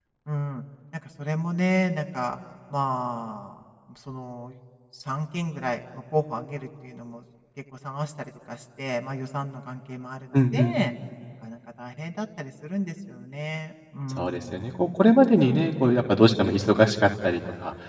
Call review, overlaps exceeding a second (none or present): none